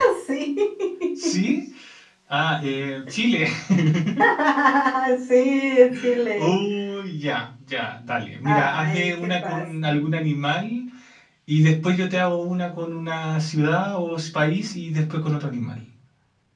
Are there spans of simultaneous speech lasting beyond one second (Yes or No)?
Yes